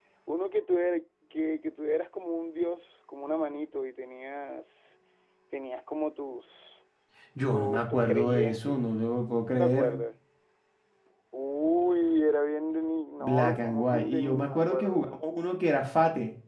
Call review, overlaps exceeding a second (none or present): present